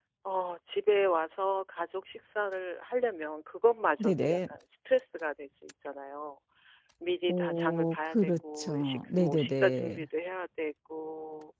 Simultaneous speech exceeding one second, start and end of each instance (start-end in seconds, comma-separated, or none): 7.3-10.1